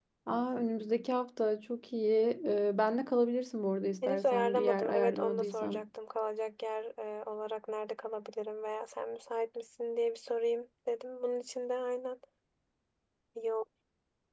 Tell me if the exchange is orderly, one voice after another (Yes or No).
No